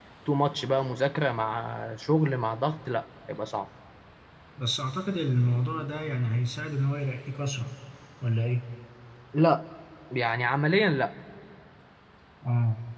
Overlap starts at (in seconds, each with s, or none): none